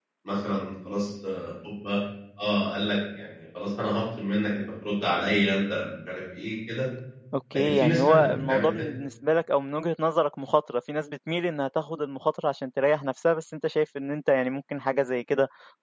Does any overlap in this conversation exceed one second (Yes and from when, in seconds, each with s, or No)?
Yes, from 7.5 s